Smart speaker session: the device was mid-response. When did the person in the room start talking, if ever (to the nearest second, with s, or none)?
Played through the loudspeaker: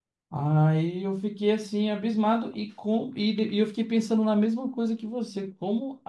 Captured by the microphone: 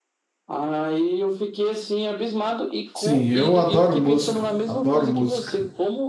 3 s